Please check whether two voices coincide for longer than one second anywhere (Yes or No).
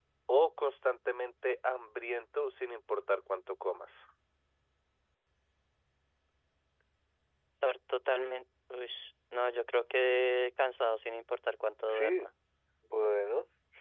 No